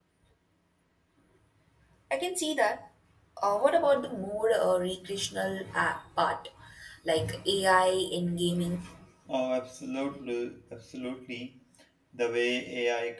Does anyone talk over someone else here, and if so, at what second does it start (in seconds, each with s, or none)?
none